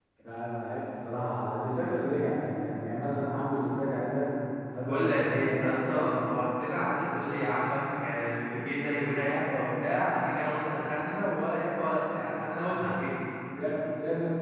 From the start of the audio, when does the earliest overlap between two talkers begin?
4.8 s

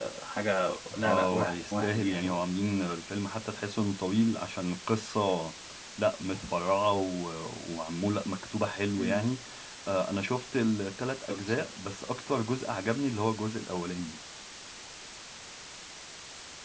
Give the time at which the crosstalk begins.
0.9 s

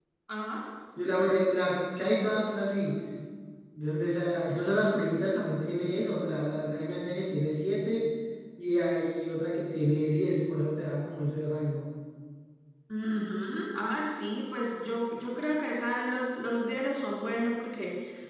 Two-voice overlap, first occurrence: none

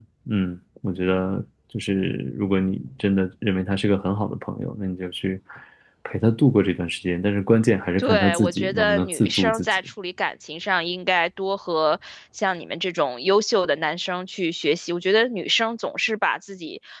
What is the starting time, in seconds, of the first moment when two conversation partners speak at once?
8.0 s

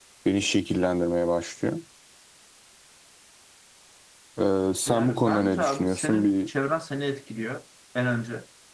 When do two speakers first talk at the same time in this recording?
4.9 s

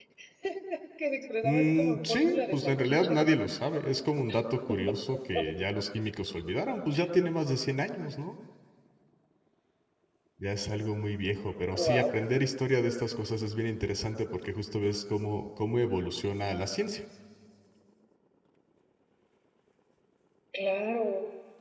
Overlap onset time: 1.4 s

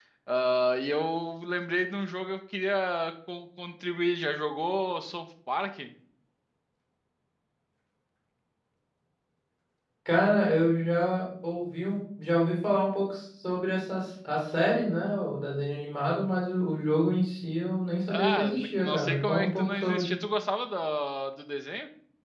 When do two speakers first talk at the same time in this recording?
18.1 s

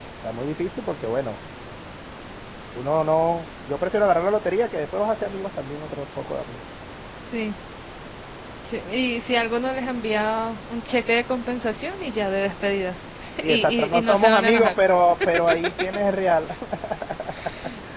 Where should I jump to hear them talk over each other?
13.5 s

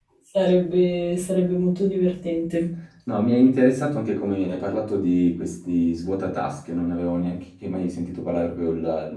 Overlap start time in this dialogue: none

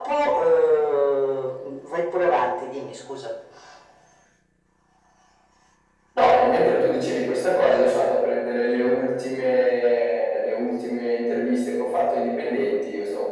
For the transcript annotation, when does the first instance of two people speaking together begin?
none

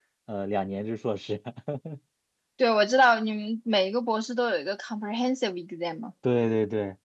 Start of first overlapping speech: none

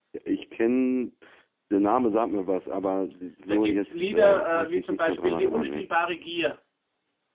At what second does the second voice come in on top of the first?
3.5 s

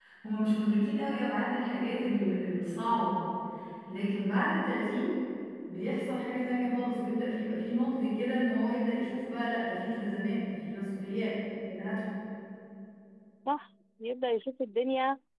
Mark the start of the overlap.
none

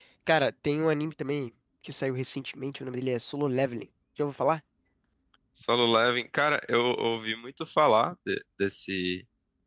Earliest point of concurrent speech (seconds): none

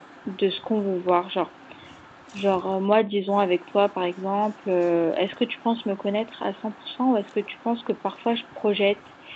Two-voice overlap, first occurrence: none

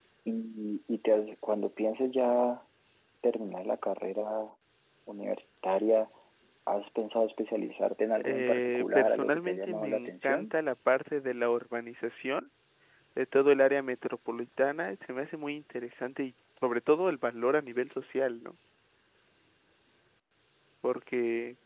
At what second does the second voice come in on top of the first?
8.2 s

